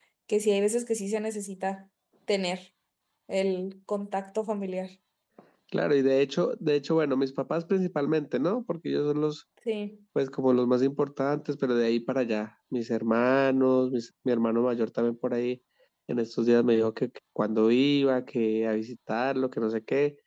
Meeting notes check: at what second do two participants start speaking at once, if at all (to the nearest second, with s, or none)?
none